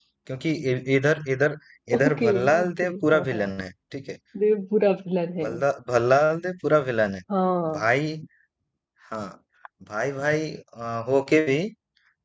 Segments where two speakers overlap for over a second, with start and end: 1.9-3.5

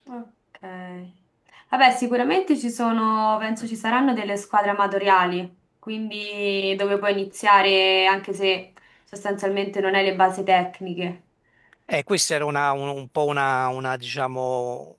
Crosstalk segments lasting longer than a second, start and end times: none

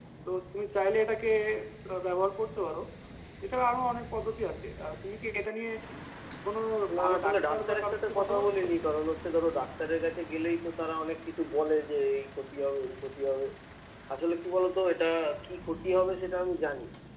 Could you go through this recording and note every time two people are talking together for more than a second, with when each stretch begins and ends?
7.0-8.6

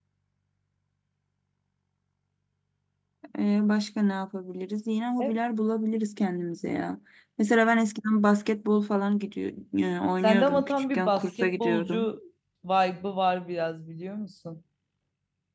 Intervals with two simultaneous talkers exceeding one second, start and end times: 10.2-12.1

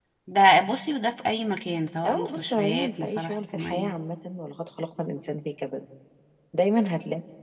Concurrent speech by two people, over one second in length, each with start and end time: 2.1-4.0

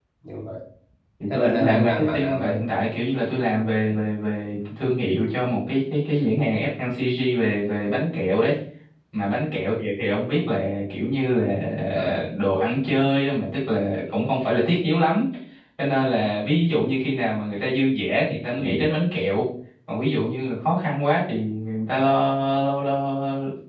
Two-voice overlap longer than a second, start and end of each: 1.3-2.6

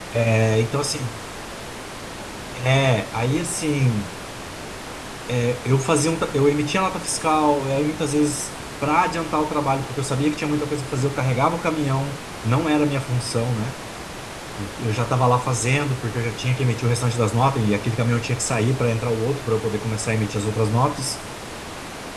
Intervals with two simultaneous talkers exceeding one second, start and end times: none

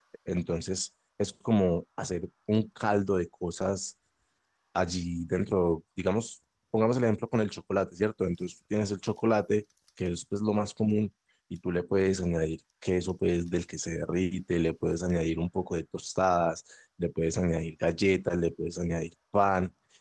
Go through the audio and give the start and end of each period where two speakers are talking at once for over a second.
none

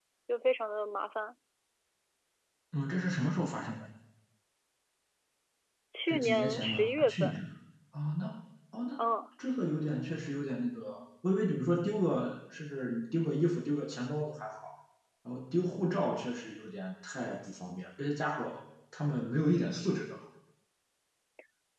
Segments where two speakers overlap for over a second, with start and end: 6.1-7.4

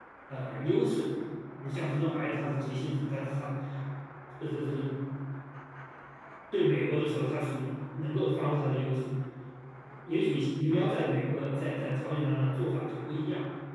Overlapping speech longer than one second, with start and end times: none

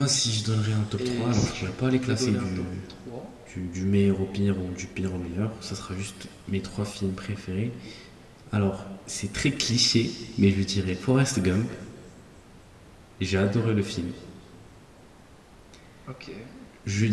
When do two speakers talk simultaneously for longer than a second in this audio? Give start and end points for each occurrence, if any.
1.0-2.6

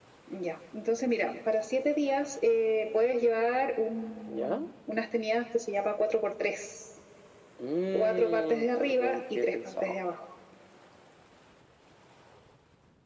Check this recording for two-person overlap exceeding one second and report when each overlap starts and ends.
7.9-9.9

